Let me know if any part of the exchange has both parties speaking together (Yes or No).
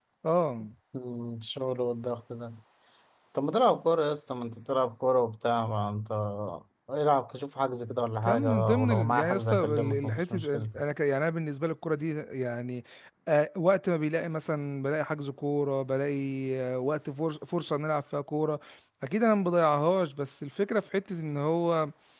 Yes